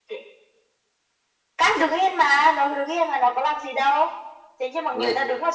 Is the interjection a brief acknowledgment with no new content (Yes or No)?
Yes